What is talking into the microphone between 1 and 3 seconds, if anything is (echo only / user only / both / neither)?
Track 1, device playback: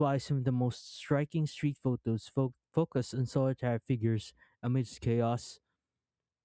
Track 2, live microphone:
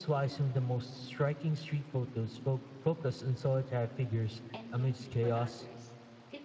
echo only